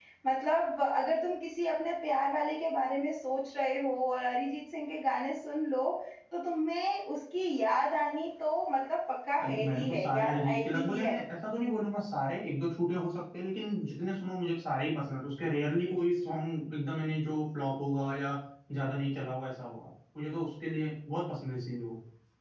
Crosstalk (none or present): present